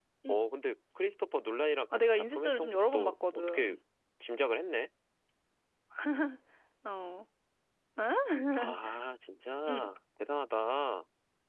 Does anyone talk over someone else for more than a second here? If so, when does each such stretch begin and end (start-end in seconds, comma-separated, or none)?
1.9-3.8